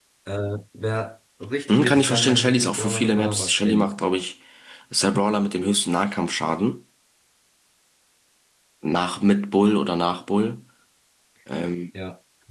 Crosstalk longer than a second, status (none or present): present